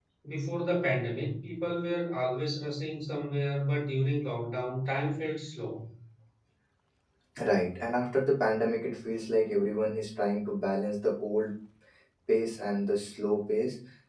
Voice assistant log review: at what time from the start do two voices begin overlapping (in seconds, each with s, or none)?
none